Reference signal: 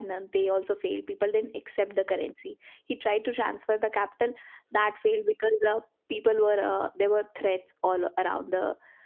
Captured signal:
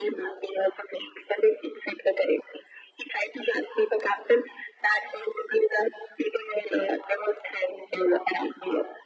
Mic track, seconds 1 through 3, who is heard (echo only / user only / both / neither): echo only